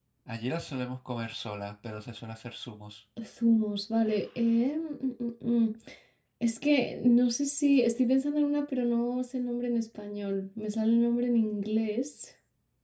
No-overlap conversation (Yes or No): Yes